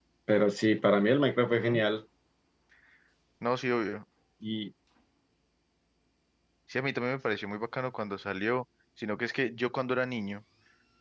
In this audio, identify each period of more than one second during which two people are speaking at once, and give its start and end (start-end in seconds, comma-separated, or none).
none